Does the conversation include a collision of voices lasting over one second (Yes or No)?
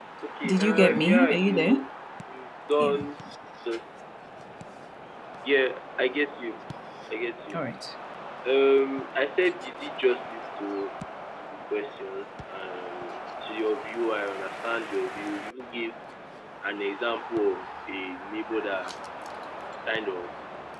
Yes